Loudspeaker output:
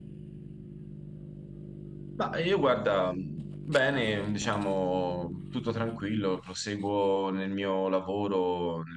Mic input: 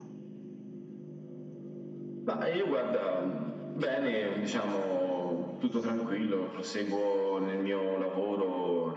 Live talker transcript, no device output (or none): none